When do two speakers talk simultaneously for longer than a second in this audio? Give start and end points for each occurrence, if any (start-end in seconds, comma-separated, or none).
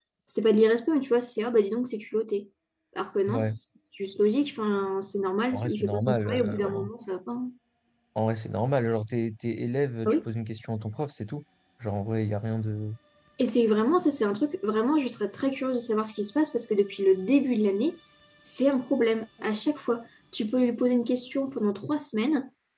5.5-6.9